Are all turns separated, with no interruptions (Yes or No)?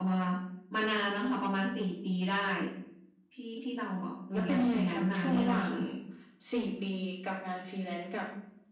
No